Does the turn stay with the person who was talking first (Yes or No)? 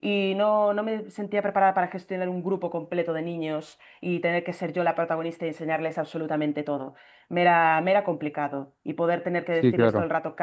Yes